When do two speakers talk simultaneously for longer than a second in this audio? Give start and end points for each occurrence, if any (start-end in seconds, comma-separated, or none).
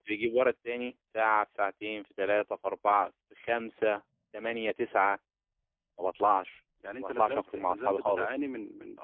7.0-8.3